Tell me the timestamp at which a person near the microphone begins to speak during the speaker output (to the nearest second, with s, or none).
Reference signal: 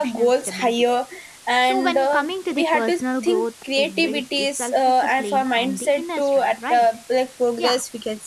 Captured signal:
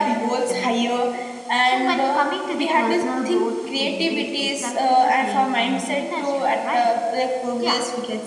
none